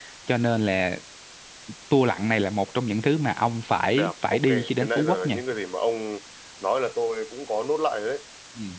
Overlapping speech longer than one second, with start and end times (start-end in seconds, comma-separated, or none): 3.9-5.4